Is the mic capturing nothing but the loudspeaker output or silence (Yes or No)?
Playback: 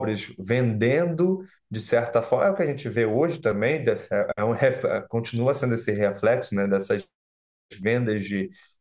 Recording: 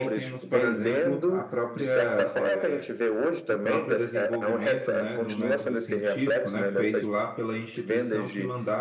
No